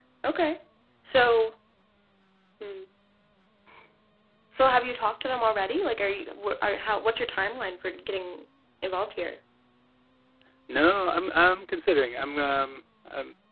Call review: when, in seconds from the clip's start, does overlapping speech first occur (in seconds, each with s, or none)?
none